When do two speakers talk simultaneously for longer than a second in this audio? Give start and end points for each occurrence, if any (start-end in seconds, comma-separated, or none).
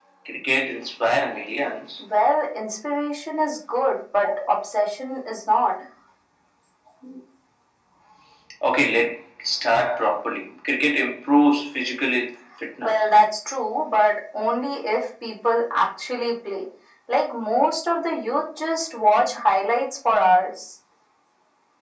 none